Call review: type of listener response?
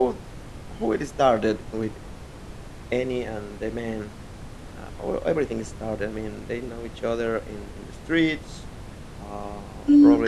taking over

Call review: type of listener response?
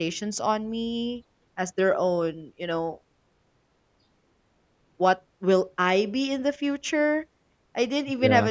listening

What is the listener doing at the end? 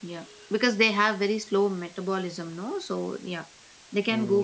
taking over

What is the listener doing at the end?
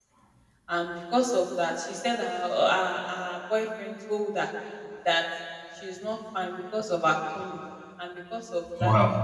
listening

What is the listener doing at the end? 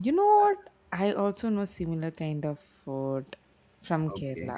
taking over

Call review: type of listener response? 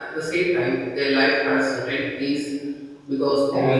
taking over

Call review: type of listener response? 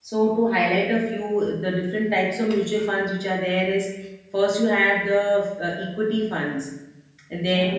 listening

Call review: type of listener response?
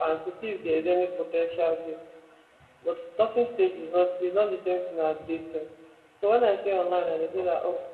listening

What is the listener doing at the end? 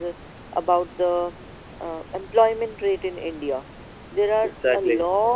listening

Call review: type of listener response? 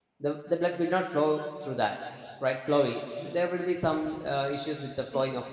listening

